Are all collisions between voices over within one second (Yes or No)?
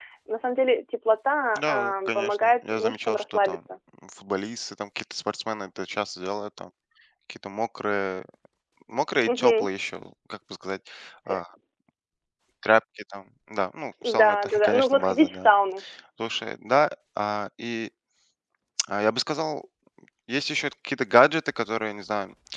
No